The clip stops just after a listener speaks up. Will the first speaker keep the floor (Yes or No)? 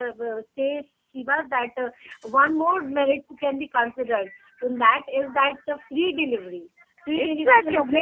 No